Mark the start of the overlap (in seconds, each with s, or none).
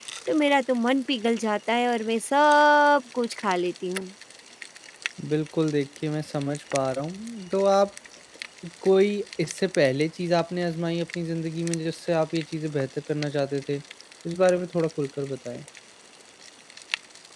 none